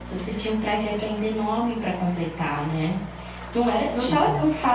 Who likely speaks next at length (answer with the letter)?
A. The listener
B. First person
B